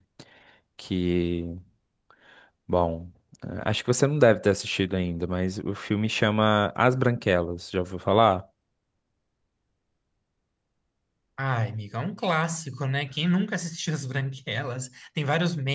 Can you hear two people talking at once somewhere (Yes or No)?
No